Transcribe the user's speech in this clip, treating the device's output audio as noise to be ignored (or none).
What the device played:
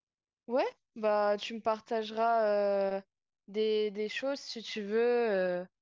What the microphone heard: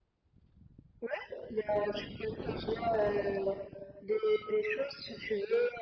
none